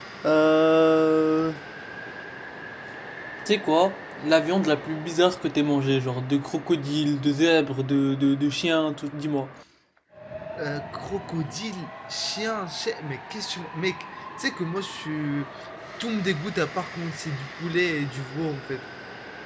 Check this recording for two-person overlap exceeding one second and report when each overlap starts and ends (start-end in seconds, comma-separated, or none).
none